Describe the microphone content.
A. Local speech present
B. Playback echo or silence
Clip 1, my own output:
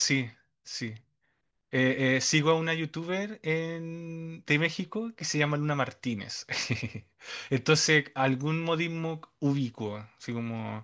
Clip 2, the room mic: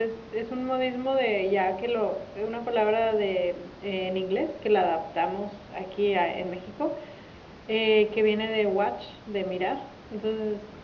A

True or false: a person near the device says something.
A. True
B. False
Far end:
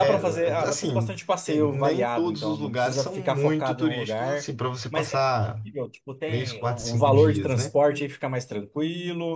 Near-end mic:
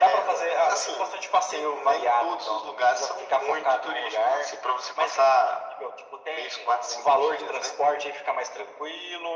B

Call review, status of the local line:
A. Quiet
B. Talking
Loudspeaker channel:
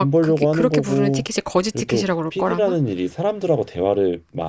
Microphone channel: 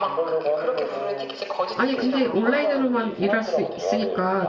B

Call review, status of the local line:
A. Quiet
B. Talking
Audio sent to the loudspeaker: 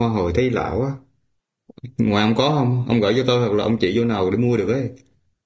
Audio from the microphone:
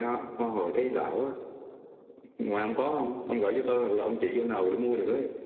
A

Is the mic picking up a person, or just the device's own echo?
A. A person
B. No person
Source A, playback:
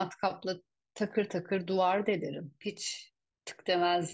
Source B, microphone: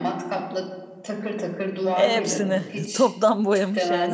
A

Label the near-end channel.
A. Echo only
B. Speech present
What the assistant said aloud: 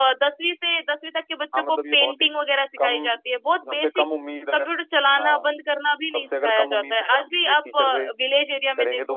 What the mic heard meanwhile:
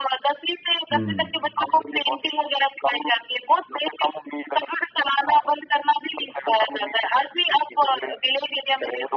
B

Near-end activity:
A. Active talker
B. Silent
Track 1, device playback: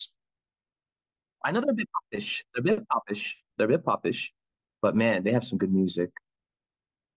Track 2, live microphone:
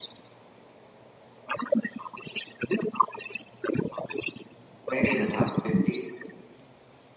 A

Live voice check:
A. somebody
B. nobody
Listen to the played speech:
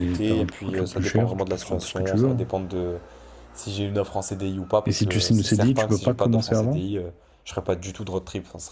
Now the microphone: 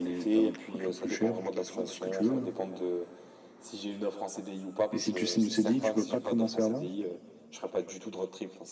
B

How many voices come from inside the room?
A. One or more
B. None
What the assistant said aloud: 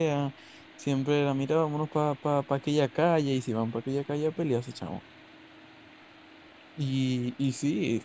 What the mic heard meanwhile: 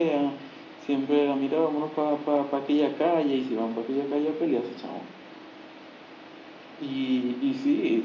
B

